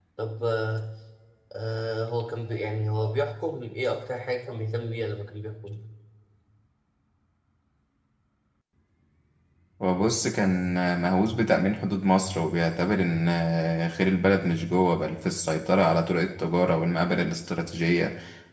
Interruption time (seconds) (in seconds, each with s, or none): none